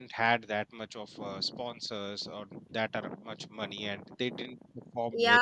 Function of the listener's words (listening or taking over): taking over